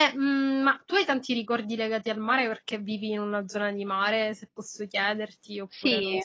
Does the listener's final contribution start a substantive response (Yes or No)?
Yes